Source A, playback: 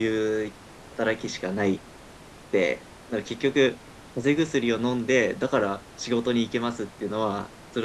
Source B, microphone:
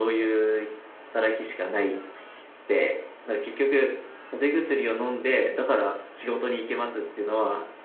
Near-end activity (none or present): none